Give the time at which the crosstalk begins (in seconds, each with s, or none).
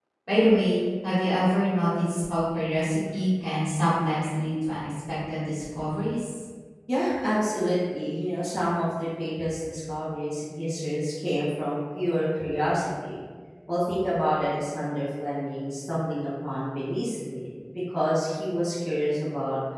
none